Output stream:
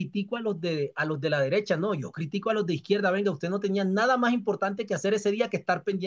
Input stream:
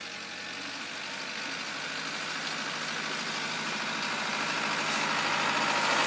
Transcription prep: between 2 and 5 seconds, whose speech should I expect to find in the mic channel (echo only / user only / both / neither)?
neither